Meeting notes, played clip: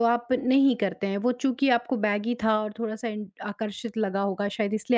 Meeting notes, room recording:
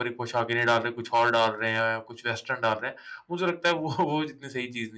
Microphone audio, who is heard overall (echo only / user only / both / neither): user only